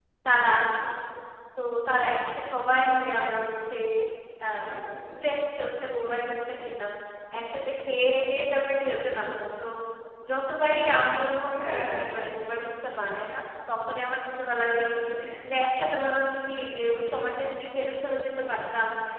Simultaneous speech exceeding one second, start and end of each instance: none

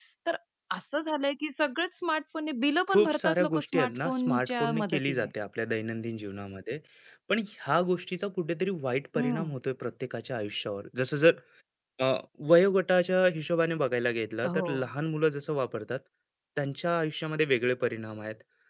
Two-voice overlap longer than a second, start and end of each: 2.9-5.3

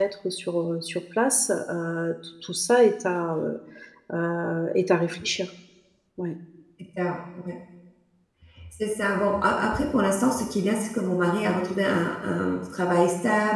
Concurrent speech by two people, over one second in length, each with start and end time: none

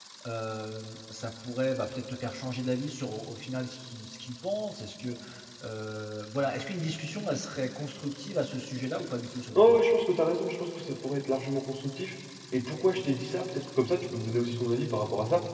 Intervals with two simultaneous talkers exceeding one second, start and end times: none

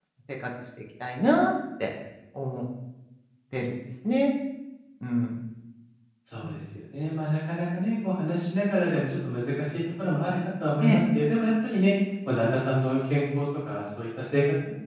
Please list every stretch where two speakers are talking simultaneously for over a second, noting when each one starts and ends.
none

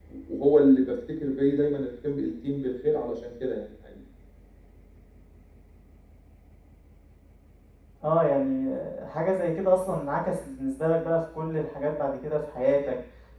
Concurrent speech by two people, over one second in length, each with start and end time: none

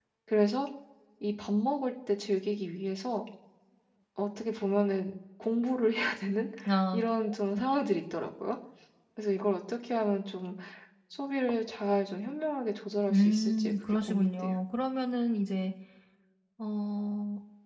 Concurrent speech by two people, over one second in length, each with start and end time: 13.1-14.6

